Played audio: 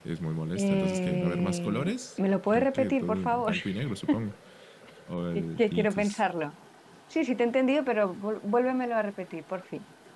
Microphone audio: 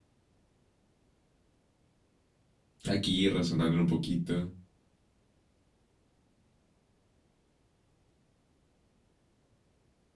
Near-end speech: present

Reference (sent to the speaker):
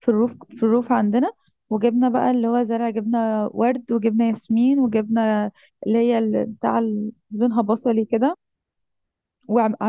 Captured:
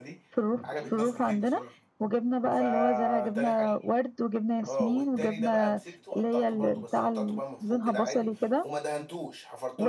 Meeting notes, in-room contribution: present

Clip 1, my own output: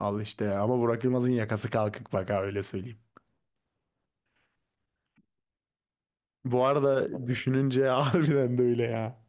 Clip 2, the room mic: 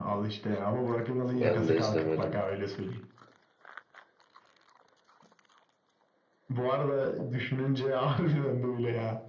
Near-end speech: present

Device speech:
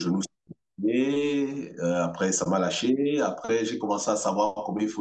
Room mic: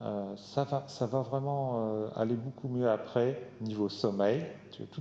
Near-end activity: present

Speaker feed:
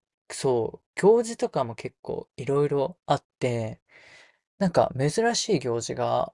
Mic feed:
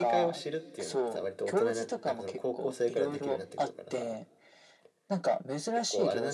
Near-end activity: present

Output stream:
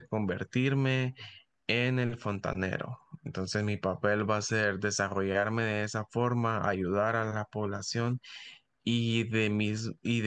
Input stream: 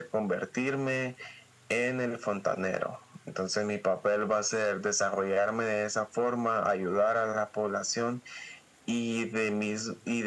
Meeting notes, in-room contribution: none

